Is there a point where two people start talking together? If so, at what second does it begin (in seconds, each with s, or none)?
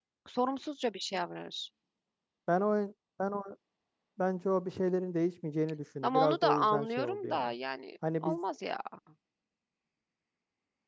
6.0 s